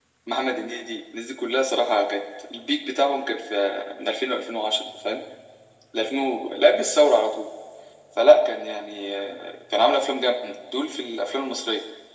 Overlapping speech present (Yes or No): No